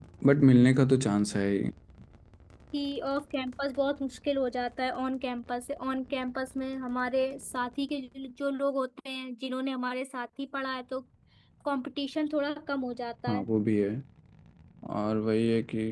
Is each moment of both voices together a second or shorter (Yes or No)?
Yes